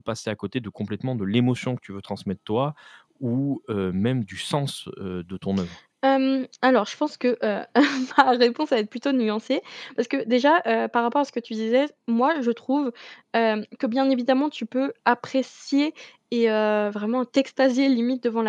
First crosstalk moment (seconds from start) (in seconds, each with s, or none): none